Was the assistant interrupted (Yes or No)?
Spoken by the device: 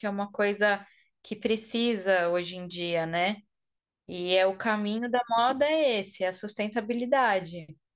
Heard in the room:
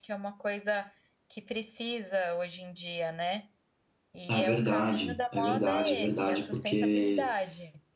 Yes